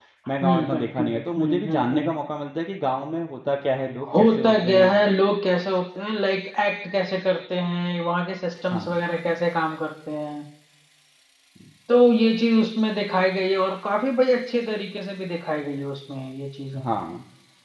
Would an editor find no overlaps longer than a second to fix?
No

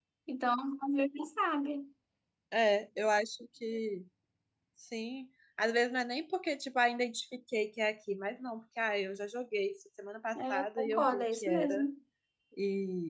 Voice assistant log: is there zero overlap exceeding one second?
No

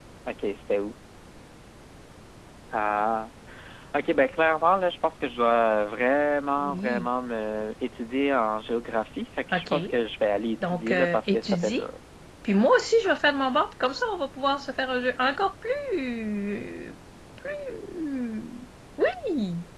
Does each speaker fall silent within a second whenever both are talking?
No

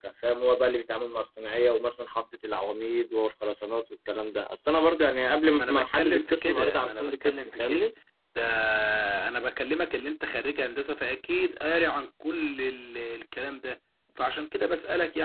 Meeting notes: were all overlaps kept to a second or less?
No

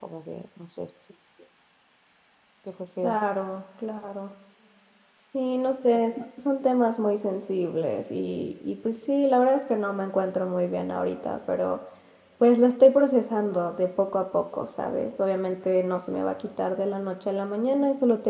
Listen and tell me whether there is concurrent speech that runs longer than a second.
No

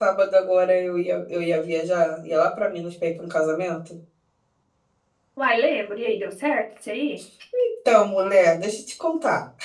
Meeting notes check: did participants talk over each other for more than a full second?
No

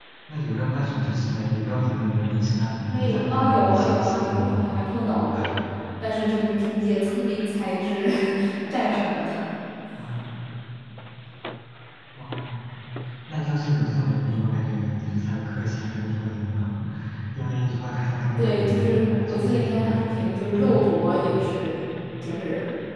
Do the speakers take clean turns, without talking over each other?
No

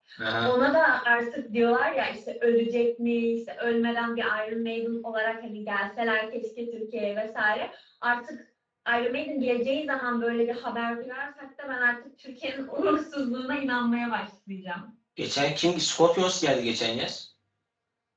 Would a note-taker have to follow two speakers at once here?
No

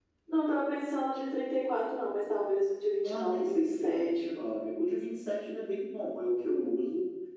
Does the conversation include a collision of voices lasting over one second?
Yes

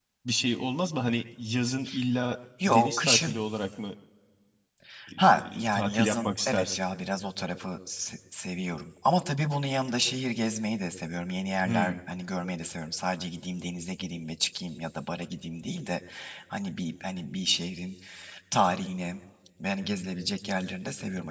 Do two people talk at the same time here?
Yes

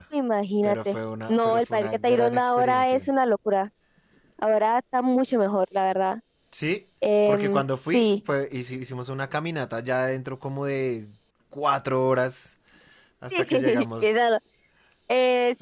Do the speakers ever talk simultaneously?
Yes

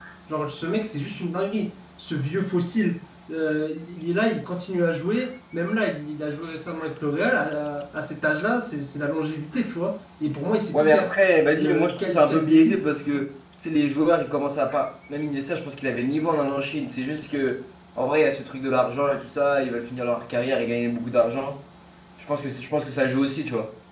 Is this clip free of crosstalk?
No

